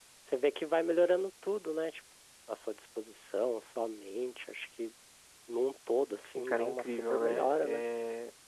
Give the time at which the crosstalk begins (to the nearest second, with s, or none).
6 s